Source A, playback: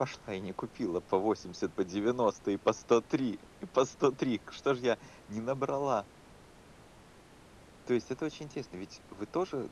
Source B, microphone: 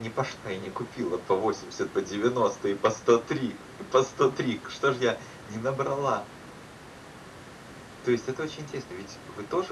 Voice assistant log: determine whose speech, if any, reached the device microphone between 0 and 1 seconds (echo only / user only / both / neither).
echo only